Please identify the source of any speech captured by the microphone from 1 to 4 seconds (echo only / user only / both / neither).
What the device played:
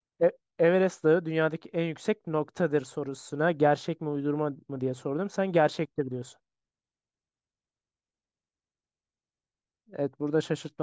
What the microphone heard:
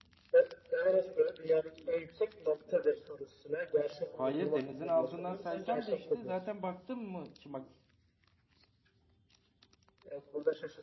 echo only